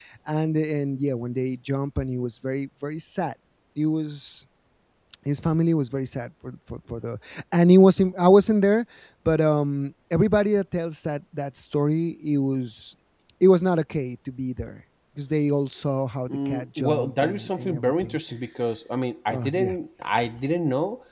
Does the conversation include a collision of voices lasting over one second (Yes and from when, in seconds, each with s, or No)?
Yes, from 16.3 s